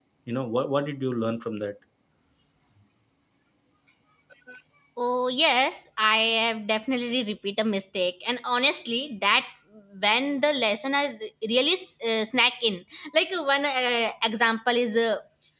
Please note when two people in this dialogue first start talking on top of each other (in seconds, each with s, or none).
none